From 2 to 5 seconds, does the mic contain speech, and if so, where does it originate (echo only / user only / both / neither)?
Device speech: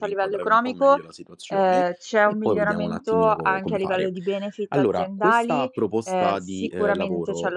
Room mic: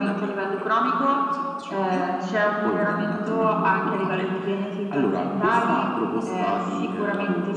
echo only